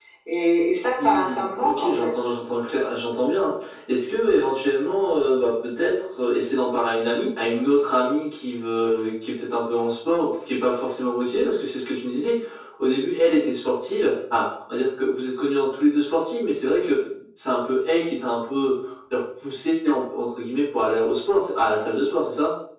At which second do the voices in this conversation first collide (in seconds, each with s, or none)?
1.0 s